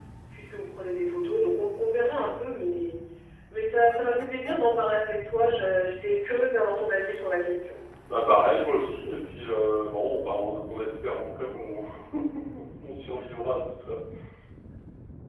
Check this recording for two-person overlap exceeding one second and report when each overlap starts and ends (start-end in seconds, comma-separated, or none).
none